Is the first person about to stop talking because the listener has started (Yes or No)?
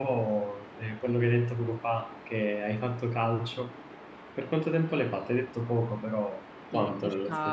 Yes